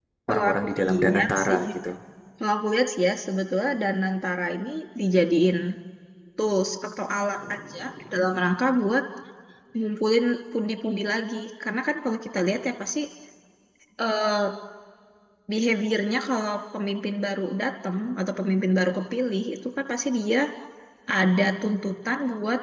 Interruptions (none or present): present